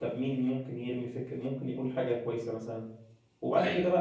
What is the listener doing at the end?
listening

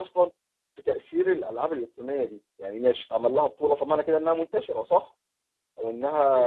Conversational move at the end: taking over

